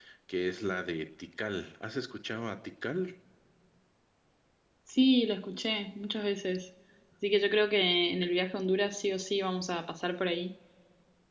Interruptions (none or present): none